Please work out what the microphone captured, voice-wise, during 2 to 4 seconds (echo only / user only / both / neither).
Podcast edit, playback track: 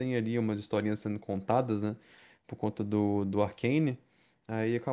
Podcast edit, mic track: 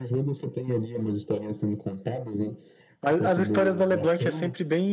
both